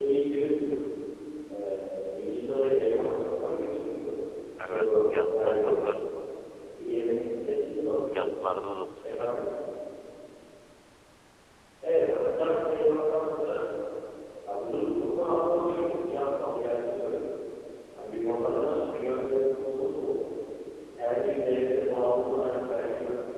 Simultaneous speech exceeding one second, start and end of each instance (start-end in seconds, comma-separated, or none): 4.7-5.9